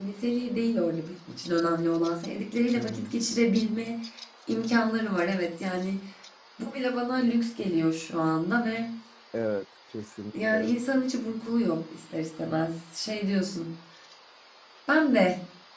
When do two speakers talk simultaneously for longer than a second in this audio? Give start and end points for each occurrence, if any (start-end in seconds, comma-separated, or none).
none